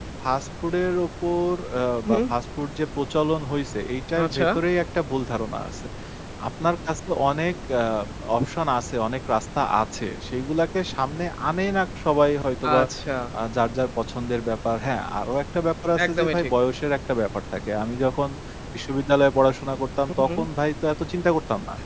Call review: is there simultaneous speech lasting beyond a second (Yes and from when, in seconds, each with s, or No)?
No